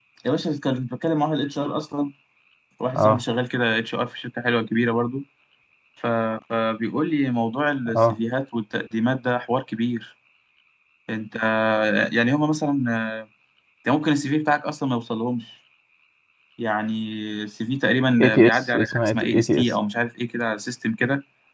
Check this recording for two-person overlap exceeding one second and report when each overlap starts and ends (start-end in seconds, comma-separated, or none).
18.2-19.6